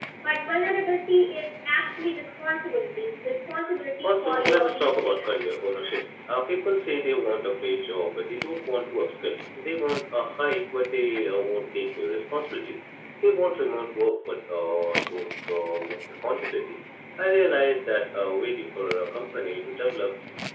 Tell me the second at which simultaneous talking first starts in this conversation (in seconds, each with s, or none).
4.0 s